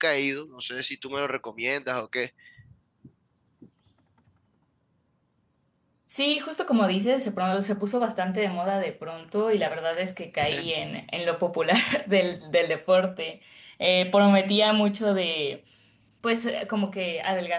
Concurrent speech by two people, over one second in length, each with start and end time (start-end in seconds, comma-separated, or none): none